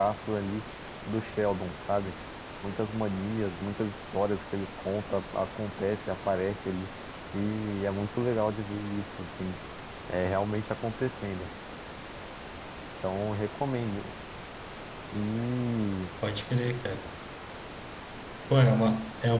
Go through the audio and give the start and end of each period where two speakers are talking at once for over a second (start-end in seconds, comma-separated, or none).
none